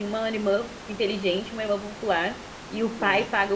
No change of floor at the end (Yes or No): Yes